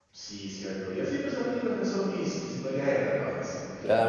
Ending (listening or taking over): taking over